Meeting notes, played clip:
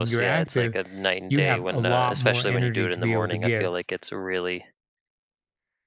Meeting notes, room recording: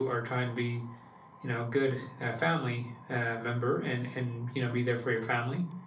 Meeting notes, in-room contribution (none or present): present